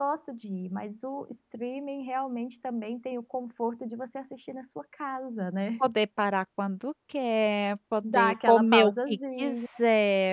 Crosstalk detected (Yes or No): Yes